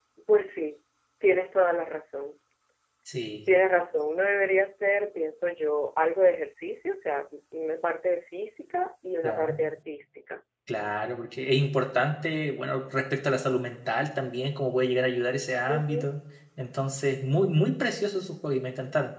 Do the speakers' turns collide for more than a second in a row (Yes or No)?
No